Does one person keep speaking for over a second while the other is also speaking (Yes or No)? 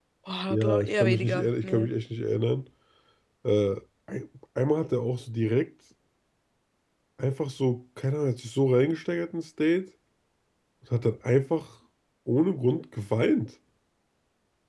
Yes